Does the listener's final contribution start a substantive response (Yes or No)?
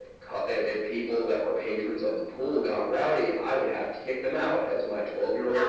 Yes